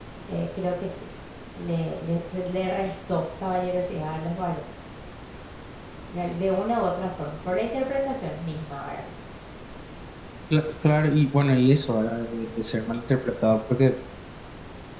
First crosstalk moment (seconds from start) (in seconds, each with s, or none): none